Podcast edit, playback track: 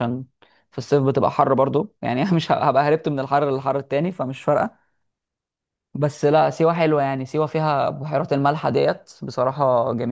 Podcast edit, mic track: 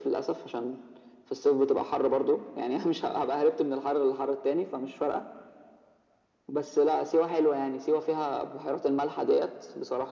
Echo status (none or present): present